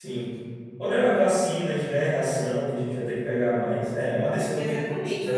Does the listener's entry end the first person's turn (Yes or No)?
Yes